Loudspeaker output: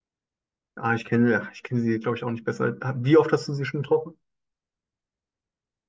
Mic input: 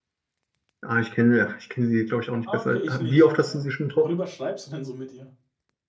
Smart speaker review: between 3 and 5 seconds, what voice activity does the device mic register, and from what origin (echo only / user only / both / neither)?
both